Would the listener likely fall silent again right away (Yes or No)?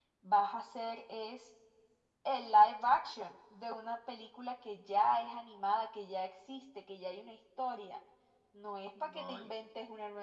Yes